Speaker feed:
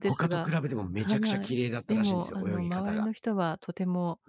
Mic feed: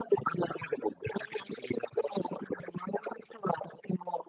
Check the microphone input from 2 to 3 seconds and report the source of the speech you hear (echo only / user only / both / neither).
echo only